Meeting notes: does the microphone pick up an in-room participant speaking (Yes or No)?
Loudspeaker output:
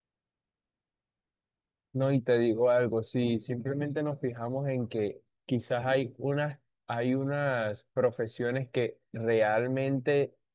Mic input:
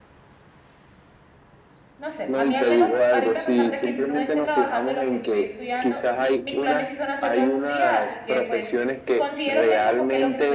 Yes